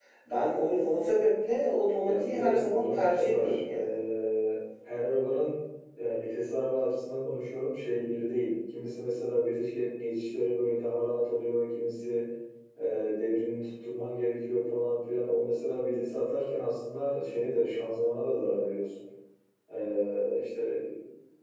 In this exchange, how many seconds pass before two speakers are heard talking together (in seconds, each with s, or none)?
2.0 s